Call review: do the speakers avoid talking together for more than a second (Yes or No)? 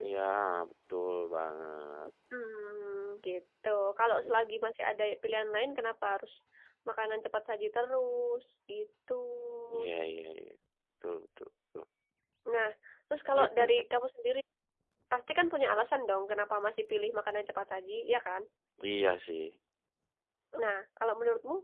Yes